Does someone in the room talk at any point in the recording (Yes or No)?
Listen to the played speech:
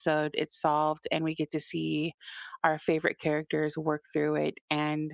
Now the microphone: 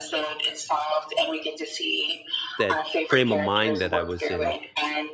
Yes